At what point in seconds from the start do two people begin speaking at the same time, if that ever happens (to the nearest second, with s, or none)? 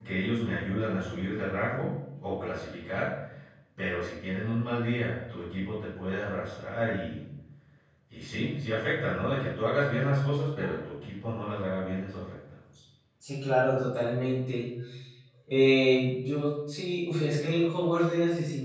none